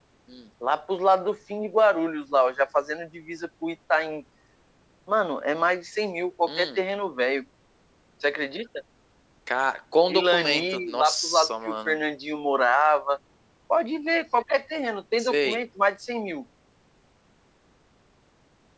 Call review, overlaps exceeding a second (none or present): present